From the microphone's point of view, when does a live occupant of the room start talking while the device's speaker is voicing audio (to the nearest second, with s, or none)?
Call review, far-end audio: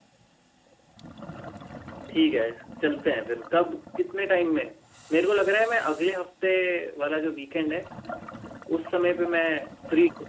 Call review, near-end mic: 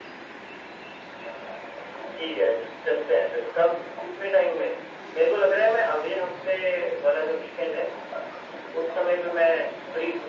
none